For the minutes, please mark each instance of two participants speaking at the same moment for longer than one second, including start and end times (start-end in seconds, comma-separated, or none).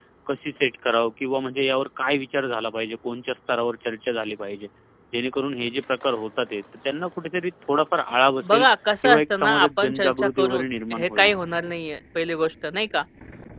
9.0-11.3